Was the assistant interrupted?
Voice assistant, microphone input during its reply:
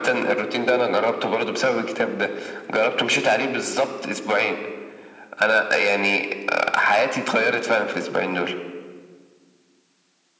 No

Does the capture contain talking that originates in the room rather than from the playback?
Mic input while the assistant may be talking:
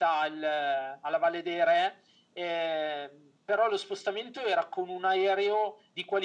No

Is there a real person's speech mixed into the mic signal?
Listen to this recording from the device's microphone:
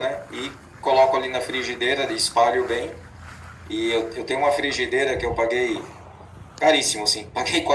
No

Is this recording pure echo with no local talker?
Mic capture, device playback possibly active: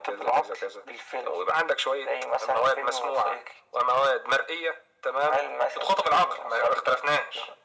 Yes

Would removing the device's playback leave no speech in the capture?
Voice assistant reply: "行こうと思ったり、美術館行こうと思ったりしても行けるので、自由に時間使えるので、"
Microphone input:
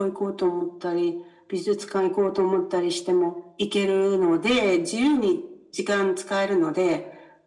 Yes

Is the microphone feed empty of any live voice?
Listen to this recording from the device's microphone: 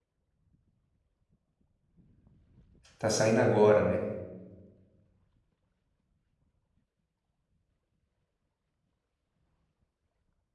No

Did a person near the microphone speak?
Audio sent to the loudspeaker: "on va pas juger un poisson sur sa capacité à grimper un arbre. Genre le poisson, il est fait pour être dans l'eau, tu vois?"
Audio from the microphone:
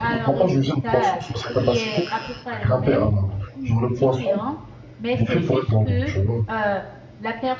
Yes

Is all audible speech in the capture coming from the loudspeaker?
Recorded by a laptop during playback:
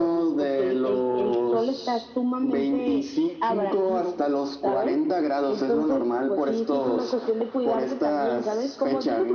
Yes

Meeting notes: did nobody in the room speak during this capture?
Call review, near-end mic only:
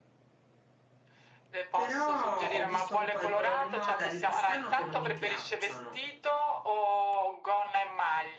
No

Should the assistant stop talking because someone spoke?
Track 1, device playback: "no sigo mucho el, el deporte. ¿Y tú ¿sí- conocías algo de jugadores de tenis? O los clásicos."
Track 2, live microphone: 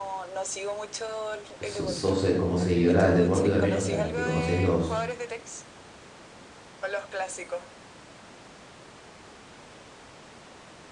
Yes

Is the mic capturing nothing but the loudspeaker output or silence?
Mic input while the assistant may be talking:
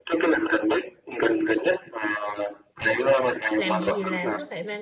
No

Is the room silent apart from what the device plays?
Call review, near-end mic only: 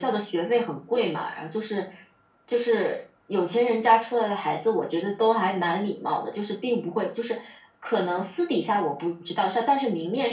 Yes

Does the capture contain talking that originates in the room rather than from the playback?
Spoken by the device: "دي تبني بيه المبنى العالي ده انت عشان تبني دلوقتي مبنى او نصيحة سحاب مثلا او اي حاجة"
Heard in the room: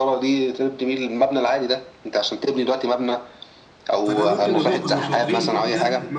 Yes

